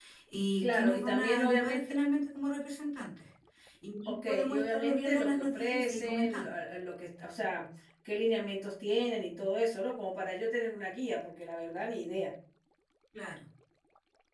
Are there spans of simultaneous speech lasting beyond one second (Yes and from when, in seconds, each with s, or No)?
Yes, from 0.6 s